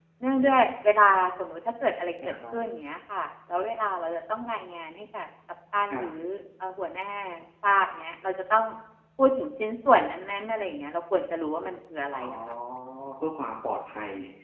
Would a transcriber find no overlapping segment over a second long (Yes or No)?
Yes